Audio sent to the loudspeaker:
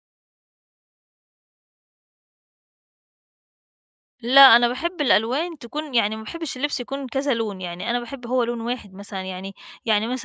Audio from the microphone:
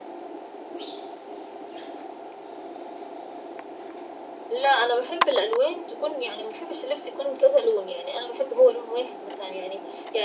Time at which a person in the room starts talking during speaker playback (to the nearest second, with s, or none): none